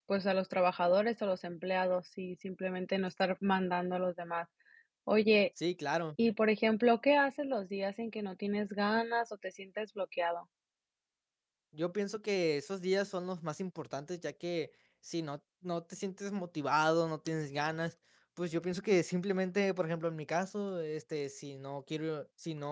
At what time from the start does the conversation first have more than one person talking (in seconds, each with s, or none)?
none